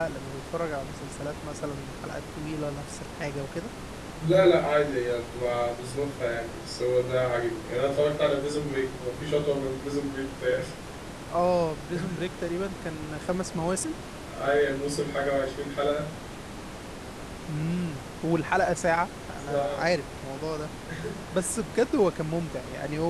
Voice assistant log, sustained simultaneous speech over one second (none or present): none